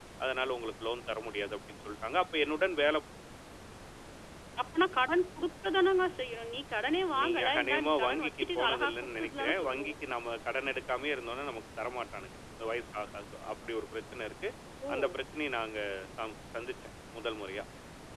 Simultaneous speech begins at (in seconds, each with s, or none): 7.2 s